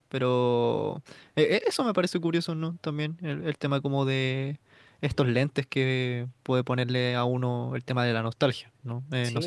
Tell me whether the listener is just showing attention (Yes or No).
No